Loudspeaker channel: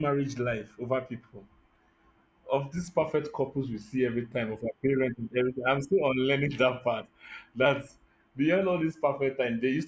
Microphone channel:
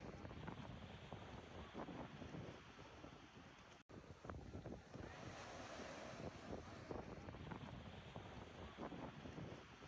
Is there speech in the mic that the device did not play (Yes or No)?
No